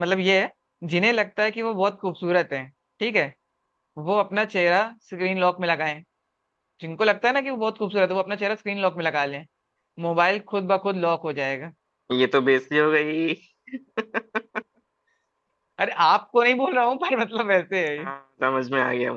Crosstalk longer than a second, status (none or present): none